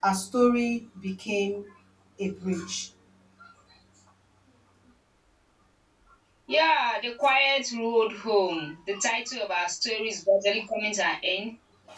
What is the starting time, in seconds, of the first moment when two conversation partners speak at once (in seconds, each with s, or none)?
none